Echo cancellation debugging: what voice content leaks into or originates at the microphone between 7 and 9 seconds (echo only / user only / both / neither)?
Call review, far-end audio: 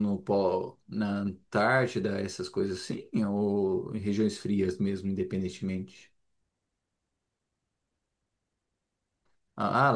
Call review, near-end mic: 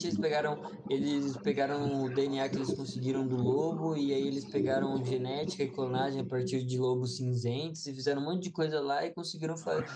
user only